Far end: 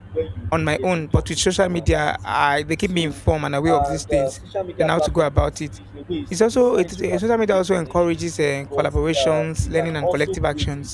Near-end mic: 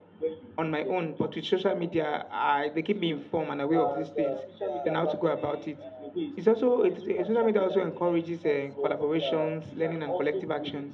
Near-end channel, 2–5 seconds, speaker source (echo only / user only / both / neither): both